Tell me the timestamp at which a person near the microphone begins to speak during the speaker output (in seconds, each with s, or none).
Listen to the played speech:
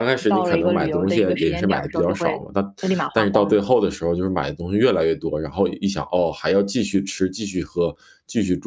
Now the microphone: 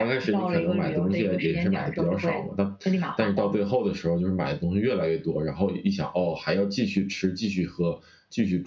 none